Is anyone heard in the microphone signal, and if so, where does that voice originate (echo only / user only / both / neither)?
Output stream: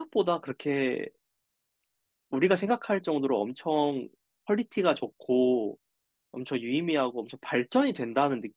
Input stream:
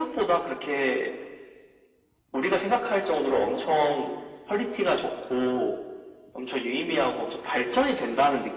echo only